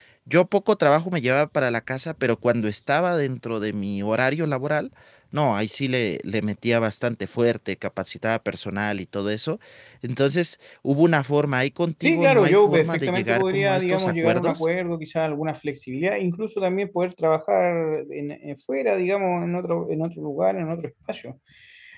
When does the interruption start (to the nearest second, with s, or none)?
12 s